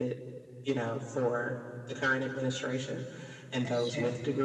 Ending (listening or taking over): listening